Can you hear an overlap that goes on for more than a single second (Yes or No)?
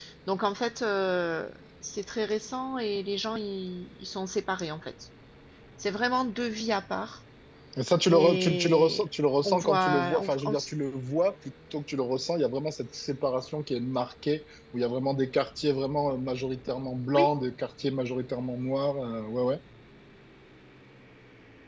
Yes